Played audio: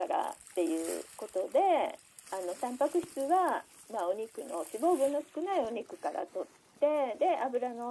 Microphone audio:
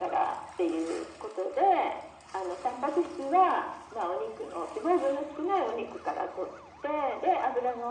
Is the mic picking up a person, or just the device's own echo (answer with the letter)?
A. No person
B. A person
A